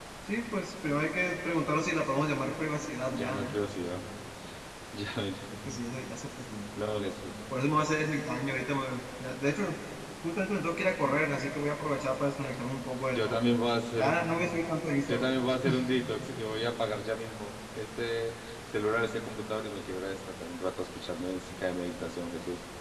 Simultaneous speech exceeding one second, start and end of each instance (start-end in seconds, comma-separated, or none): none